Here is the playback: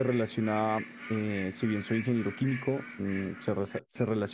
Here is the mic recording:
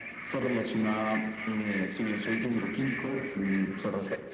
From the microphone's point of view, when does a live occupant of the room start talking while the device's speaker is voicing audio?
none

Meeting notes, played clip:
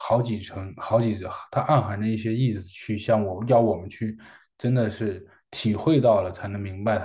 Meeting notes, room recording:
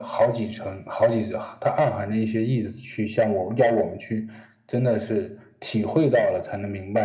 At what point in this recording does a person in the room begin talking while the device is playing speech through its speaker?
none

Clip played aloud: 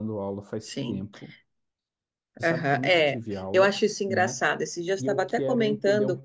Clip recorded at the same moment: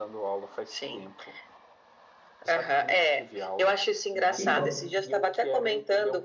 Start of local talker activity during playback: 4.3 s

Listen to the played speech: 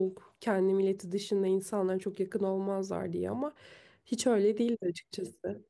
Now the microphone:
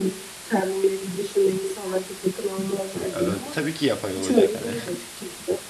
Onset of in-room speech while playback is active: 3.1 s

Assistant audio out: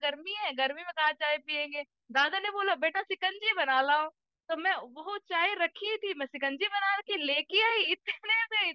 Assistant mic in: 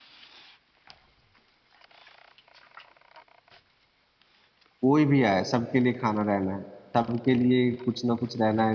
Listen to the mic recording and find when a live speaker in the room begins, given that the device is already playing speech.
4.8 s

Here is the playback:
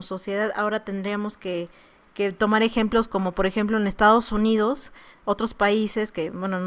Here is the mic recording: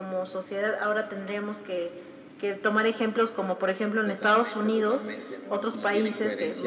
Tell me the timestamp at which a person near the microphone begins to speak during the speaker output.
4.0 s

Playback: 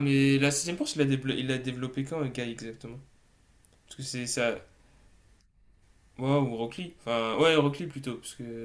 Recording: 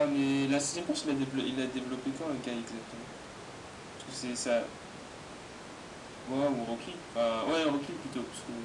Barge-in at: none

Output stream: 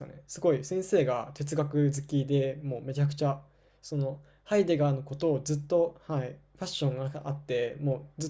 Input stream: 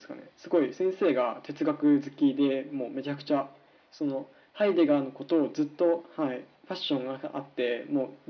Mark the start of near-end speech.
none

